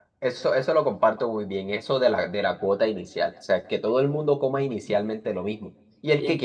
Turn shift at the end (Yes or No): No